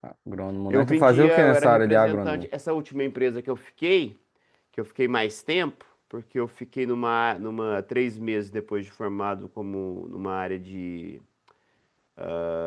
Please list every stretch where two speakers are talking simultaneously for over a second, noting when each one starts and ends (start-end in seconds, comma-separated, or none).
0.7-2.5